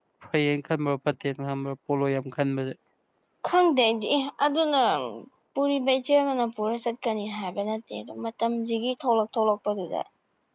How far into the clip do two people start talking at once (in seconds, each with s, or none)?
none